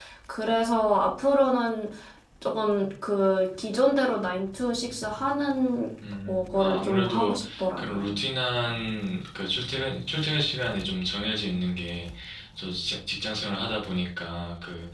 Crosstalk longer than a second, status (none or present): present